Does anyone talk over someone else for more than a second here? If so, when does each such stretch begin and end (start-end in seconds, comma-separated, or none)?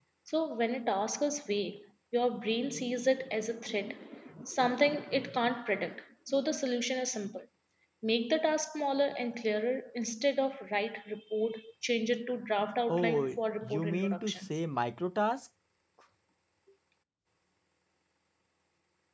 12.9-14.5